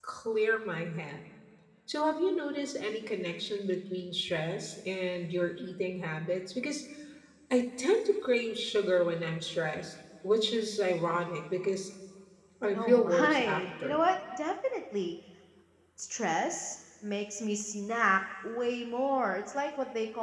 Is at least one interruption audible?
Yes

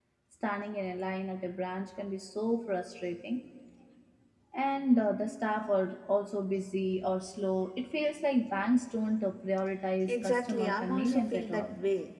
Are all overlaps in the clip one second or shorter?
No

